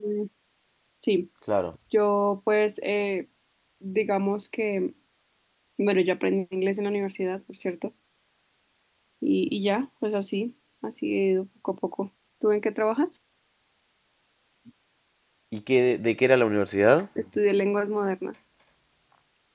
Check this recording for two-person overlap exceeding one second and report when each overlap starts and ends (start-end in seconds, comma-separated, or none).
none